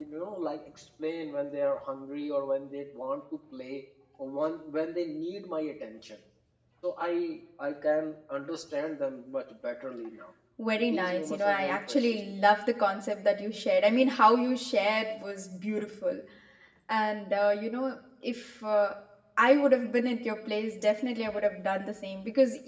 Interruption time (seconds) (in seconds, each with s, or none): 10.8 s